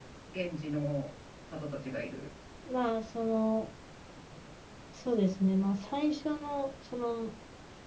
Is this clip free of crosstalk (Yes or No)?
Yes